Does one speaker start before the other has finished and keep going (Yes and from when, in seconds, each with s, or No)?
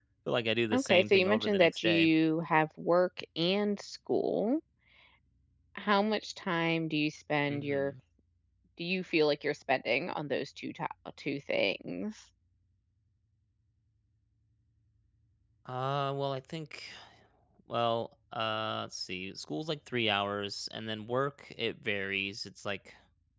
Yes, from 0.7 s